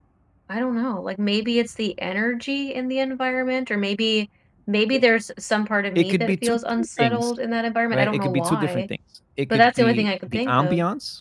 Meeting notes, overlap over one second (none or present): present